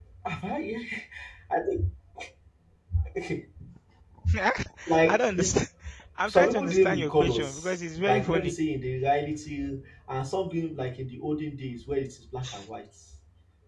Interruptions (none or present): present